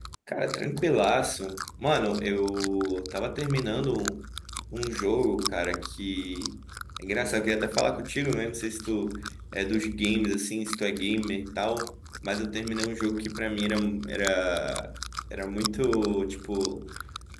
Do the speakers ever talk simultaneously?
No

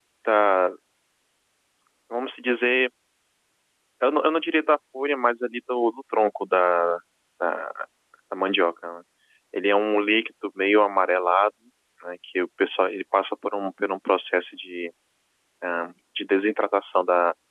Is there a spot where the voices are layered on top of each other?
No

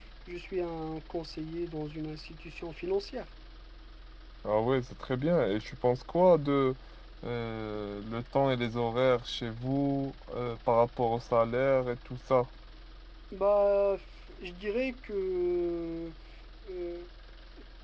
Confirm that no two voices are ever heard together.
Yes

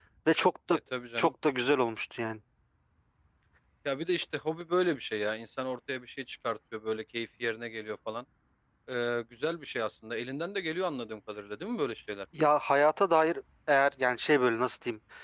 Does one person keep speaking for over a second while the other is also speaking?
No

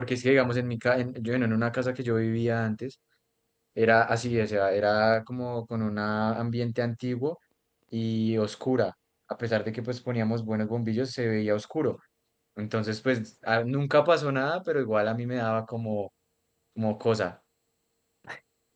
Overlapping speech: No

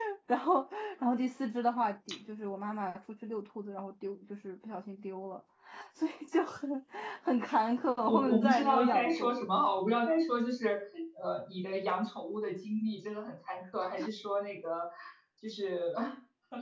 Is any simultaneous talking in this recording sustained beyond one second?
Yes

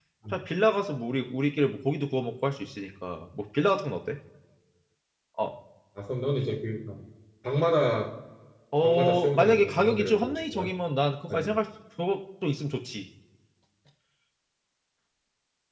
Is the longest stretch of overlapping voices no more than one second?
No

